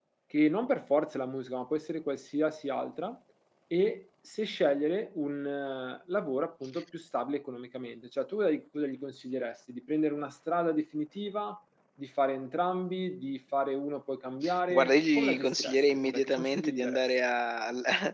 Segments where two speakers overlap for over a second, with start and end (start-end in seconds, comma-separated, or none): 14.7-17.0